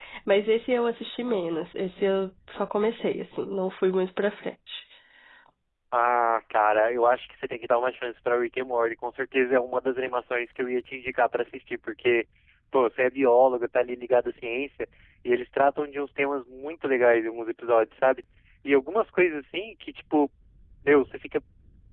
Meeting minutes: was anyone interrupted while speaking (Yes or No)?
No